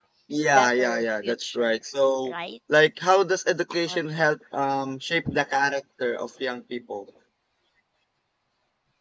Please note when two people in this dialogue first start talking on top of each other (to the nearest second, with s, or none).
1 s